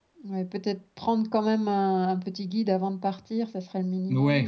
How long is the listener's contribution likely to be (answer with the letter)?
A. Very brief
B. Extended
B